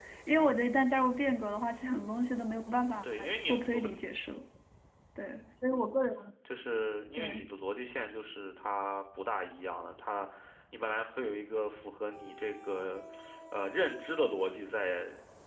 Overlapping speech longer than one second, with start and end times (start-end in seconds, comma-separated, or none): 2.6-3.9